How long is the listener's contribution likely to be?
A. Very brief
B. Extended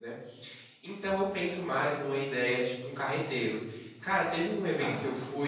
A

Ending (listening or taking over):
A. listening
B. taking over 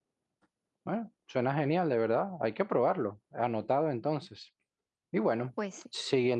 A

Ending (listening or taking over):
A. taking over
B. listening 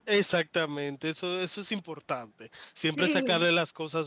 B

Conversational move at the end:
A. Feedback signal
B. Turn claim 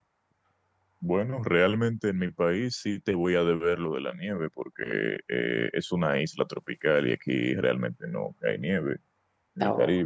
A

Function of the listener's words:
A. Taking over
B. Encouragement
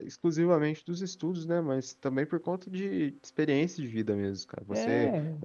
B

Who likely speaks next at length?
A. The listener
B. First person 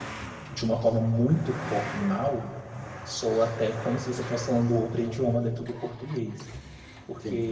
B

